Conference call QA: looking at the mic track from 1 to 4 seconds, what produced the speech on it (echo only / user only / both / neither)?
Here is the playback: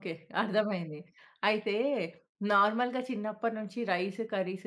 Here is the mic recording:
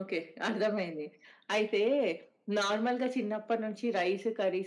echo only